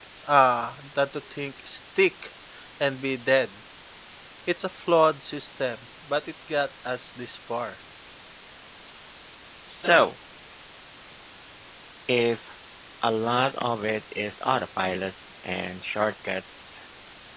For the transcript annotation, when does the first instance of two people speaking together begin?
none

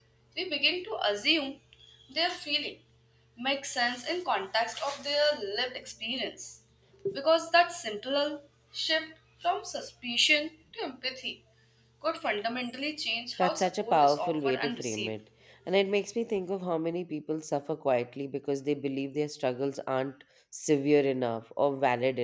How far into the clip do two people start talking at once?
13 s

